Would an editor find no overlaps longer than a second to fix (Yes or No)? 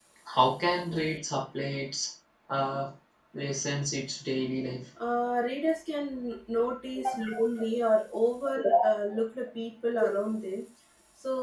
Yes